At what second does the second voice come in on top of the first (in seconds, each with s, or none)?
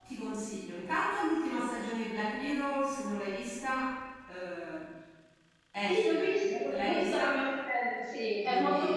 5.9 s